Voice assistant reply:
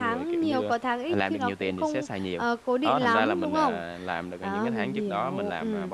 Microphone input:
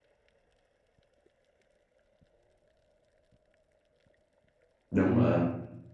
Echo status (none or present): none